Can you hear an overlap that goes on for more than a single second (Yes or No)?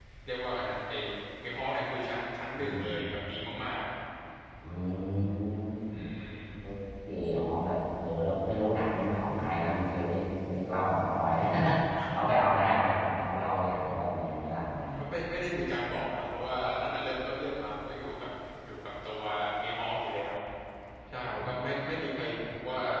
No